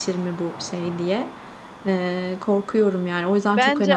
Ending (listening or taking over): taking over